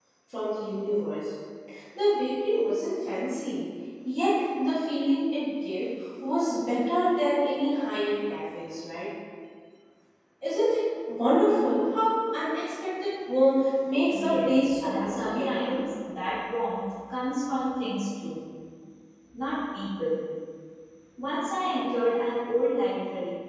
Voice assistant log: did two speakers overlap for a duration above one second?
Yes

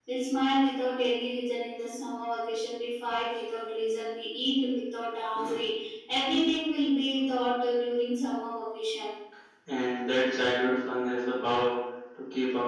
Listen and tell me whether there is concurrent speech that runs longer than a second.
No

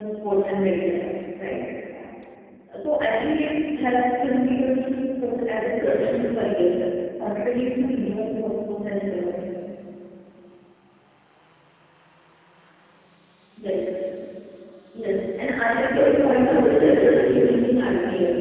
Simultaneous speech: Yes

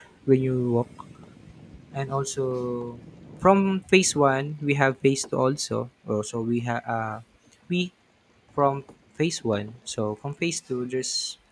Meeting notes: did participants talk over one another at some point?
No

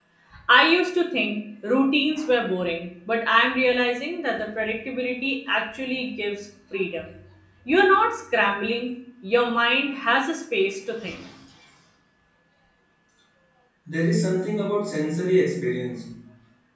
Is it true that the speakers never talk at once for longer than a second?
Yes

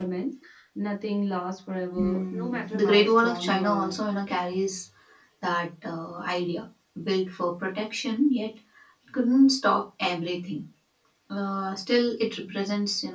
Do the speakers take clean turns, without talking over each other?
No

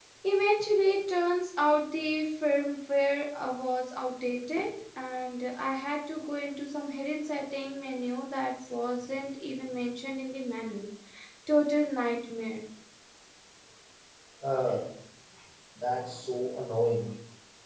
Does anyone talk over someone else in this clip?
No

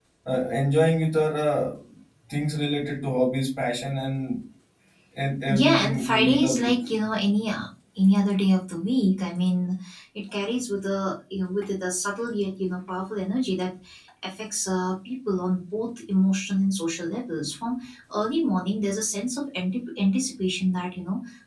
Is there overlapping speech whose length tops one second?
Yes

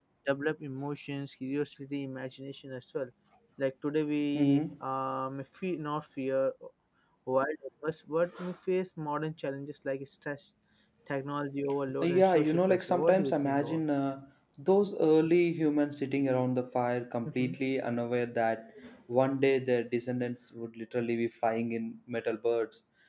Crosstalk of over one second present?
Yes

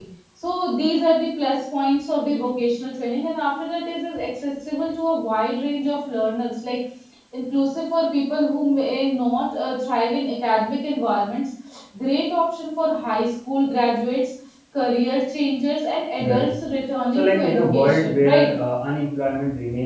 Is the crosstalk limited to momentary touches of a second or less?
No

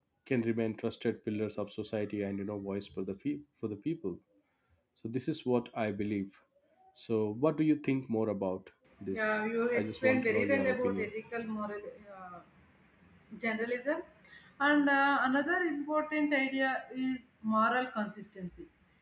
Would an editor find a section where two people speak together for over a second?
Yes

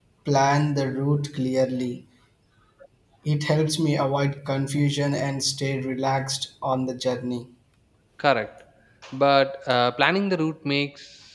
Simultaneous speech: No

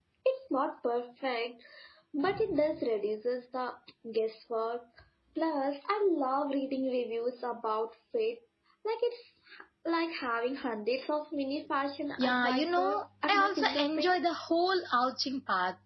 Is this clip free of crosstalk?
No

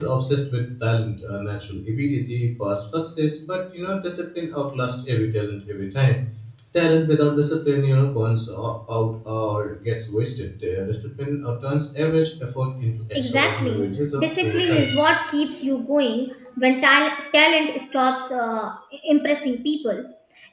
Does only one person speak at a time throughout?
No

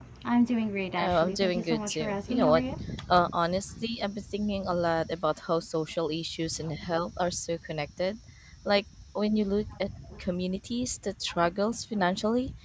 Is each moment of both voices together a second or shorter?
No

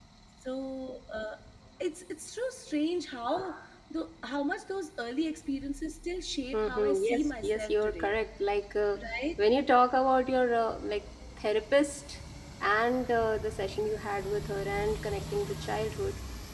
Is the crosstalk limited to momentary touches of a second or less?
No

